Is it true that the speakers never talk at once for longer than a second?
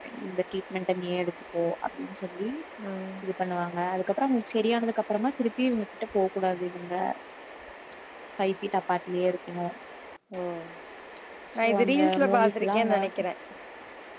No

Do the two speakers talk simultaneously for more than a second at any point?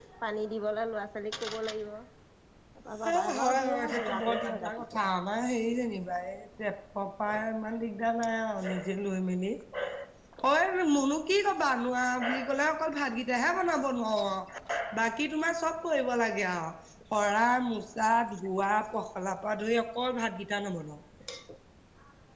Yes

